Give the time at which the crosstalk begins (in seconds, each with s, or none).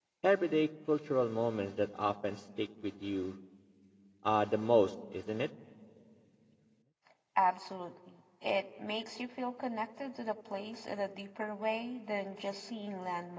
none